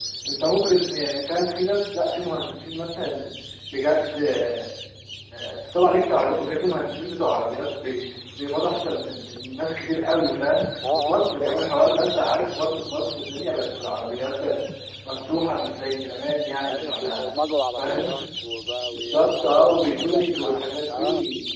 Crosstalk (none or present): present